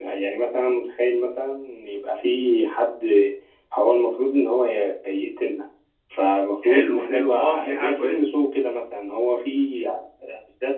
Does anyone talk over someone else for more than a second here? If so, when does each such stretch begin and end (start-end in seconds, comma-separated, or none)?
6.7-8.3